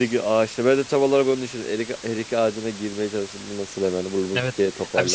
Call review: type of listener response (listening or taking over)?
taking over